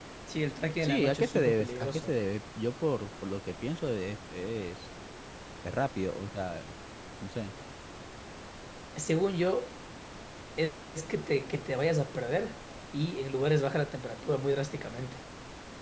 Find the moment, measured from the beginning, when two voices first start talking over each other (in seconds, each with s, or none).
0.8 s